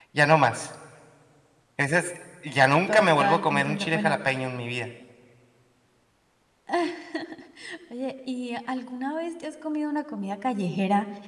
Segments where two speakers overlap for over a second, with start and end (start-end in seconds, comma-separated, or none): 2.9-4.2